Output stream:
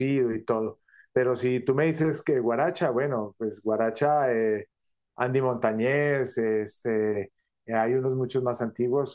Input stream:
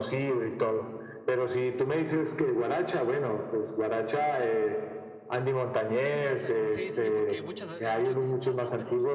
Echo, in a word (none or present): present